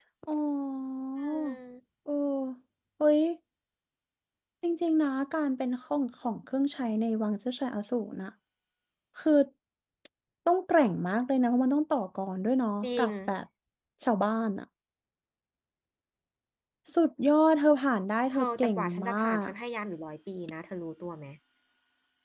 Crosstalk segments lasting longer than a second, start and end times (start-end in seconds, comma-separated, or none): 18.3-19.5